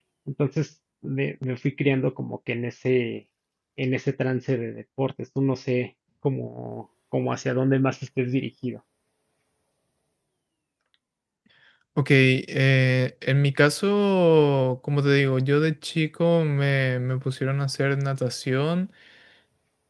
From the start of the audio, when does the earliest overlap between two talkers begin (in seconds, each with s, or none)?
none